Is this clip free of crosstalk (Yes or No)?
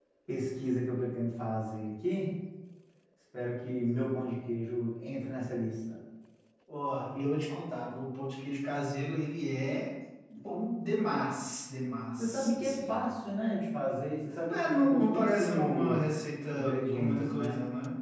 No